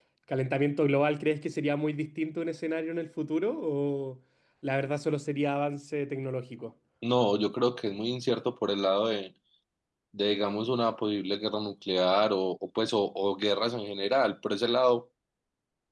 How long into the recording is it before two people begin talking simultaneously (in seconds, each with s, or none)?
none